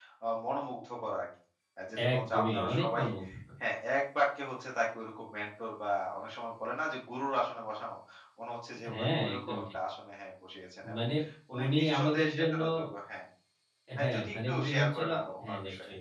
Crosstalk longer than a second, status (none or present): present